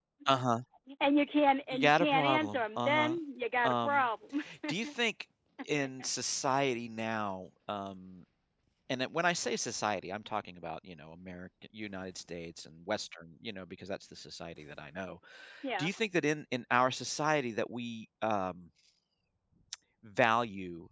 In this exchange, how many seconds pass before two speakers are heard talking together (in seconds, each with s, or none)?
1.7 s